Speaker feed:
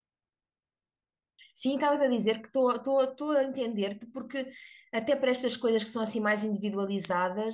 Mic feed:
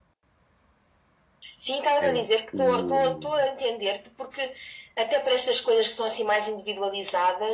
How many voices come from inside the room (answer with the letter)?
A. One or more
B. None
A